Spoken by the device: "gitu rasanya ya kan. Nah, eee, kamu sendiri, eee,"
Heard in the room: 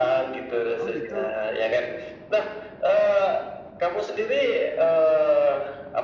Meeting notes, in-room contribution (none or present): present